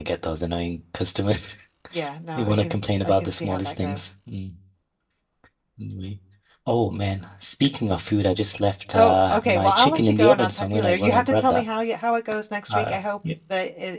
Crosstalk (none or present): present